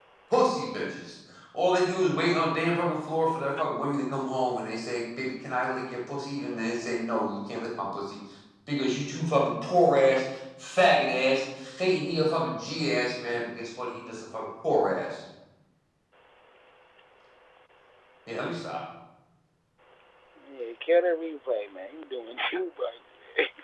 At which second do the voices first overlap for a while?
none

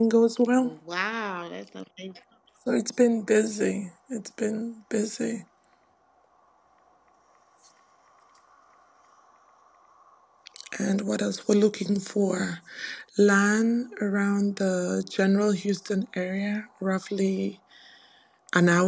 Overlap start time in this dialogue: none

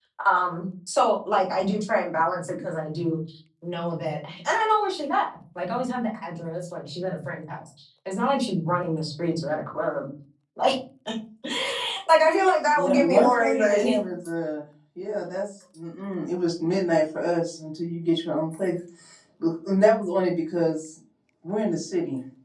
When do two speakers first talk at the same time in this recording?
12.8 s

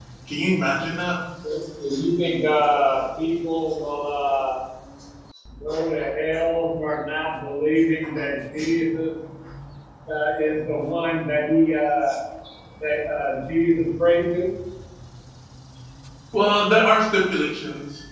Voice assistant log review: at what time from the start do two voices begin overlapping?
none

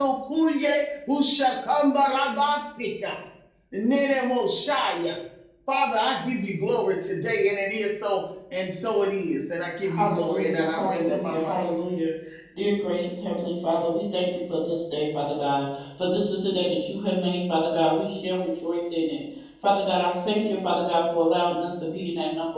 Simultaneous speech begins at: 9.9 s

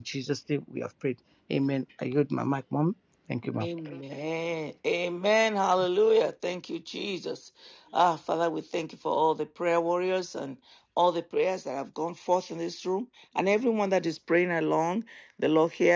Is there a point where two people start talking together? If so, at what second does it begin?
none

